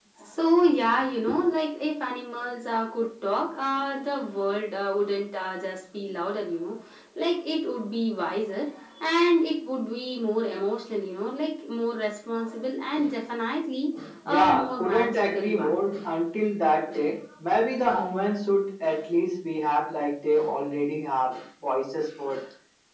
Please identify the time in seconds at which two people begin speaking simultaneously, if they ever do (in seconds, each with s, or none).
14.2 s